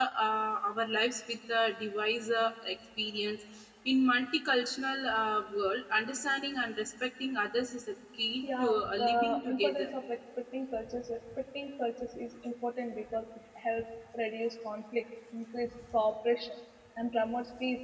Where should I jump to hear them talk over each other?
8 s

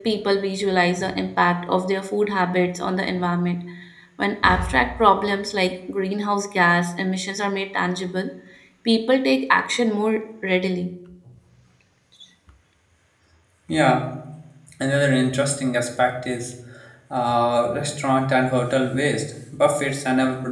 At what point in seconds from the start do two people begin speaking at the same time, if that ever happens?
none

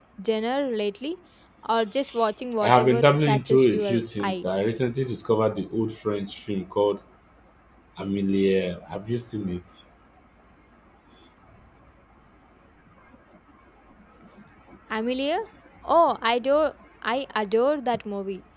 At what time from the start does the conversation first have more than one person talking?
3 s

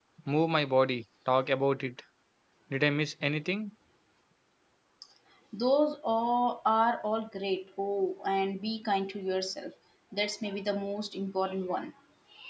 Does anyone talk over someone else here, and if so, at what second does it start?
none

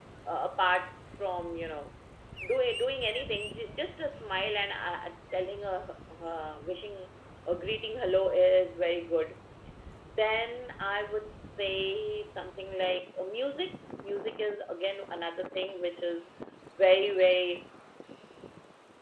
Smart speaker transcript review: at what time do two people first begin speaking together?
none

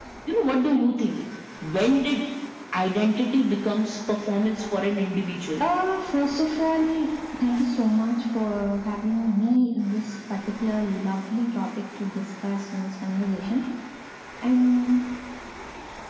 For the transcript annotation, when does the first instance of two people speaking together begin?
none

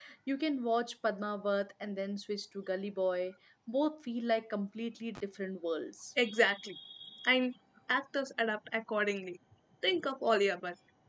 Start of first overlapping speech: none

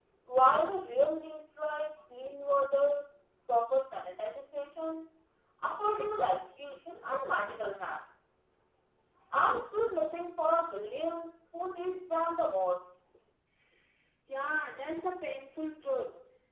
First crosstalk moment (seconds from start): none

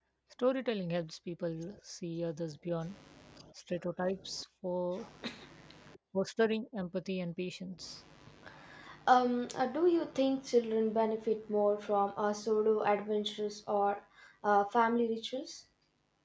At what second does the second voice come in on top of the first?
none

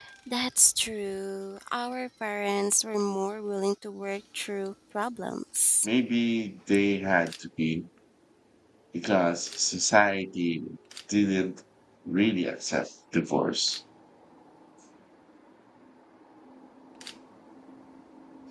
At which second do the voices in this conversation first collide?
none

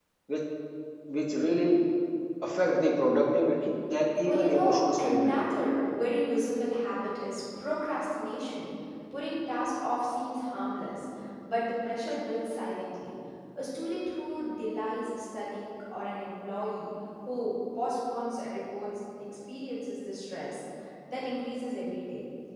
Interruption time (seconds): 4 s

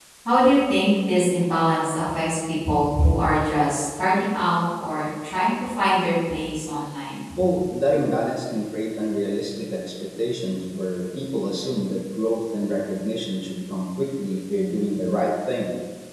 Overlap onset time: none

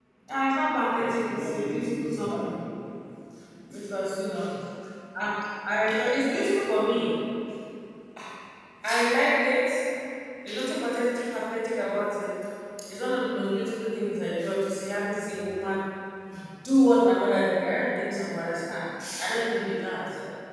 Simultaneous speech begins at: 1 s

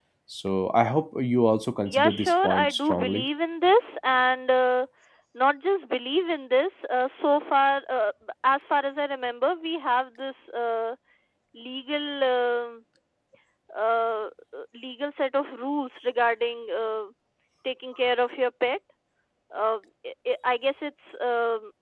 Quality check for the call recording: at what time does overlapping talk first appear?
2 s

